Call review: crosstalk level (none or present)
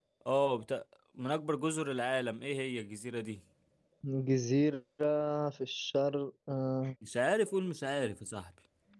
none